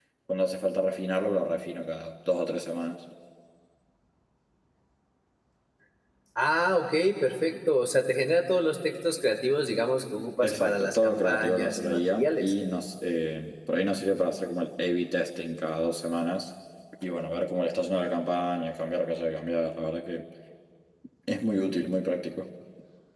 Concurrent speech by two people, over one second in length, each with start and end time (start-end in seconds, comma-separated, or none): 10.4-12.5